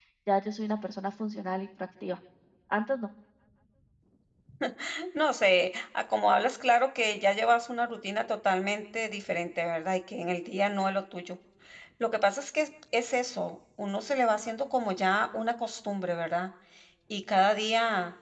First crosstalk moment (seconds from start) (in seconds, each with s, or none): none